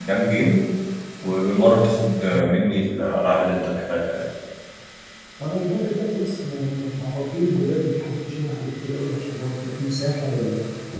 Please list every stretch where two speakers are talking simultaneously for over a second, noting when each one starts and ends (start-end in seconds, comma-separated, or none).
none